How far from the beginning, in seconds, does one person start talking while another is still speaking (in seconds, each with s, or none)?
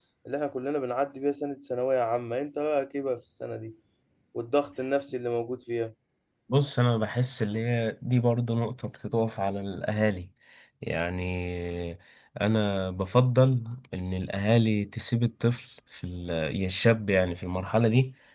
none